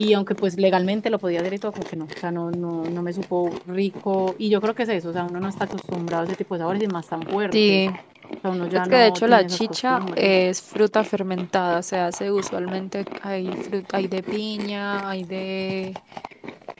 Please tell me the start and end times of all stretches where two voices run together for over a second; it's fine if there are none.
8.8-10.3

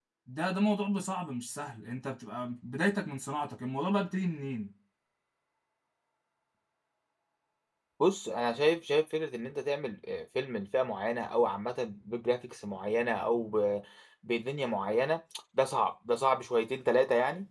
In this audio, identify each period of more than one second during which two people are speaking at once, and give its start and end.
none

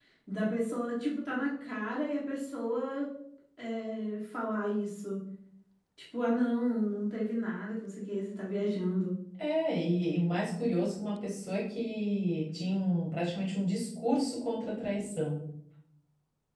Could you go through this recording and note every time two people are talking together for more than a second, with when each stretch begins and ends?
none

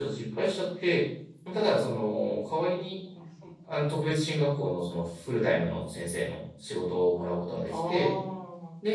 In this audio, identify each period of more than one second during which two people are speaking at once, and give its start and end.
none

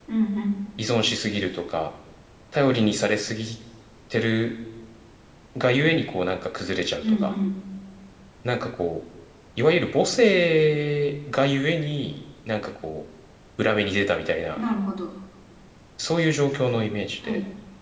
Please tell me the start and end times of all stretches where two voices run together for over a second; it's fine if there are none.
none

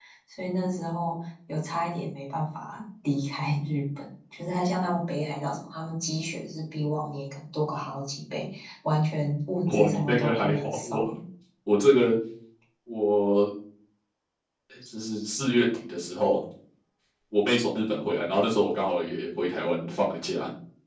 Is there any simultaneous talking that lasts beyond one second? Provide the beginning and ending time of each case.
9.7-11.1

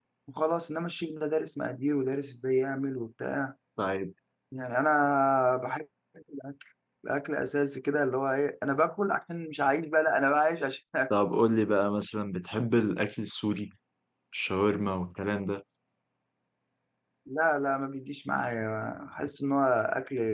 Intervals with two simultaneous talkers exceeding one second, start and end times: none

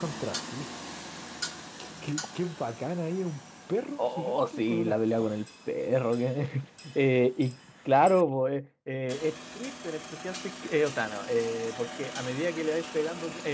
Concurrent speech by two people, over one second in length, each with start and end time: 4.0-5.4

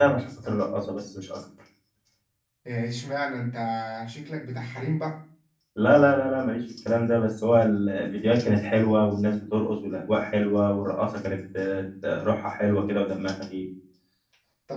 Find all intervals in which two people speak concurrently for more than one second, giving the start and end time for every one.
none

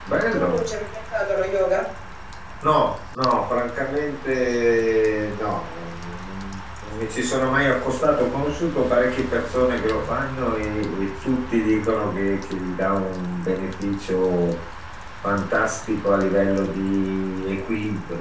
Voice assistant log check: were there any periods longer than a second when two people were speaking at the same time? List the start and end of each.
none

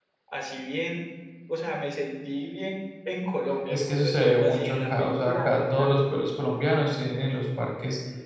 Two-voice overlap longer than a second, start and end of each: 3.7-6.2

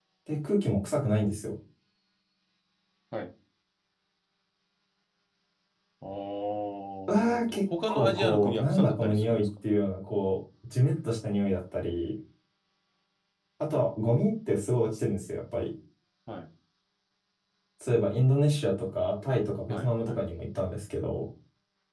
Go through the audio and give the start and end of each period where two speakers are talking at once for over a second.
7.1-9.4

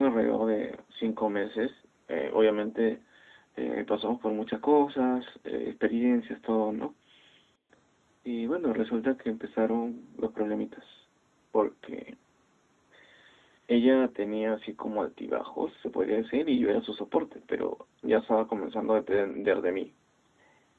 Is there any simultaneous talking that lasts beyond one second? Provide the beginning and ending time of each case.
none

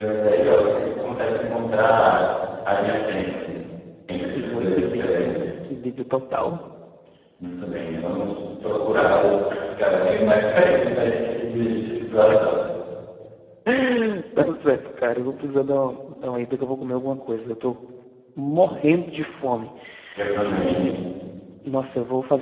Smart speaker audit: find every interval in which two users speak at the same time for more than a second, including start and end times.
4.2-5.5

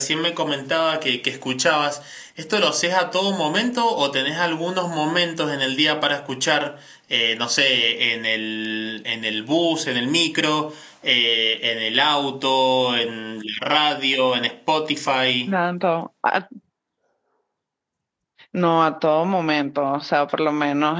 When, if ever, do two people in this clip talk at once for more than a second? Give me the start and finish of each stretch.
none

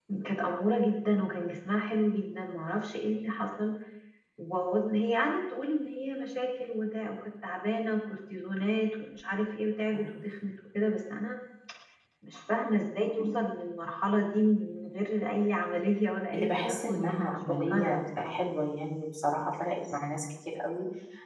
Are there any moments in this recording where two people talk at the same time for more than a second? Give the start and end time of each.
16.3-18.4

